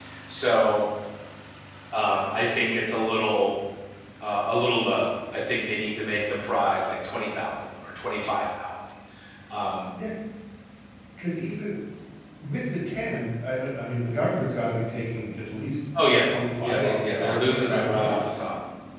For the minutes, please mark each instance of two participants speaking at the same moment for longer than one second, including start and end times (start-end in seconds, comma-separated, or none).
16.6-18.2